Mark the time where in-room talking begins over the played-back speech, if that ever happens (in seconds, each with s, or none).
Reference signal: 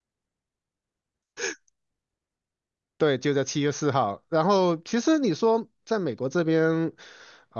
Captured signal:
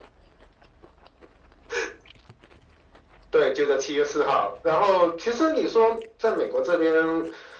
none